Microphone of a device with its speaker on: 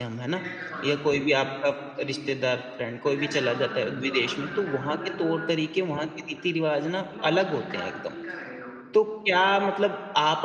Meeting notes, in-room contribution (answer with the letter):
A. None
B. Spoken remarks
B